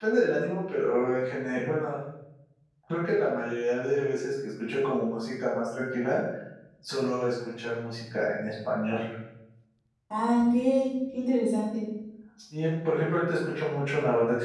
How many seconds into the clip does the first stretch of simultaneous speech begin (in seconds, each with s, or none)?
none